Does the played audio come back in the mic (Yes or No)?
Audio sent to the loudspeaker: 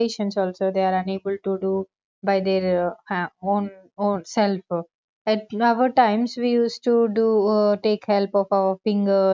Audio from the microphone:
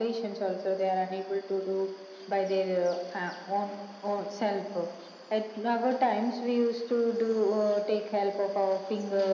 Yes